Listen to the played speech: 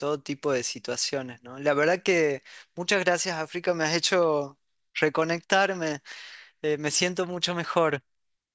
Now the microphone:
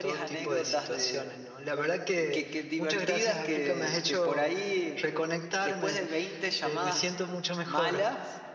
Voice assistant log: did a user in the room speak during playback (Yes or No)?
Yes